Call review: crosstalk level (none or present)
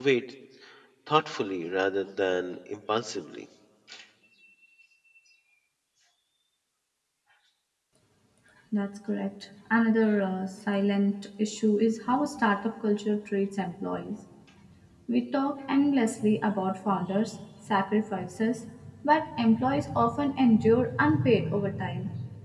none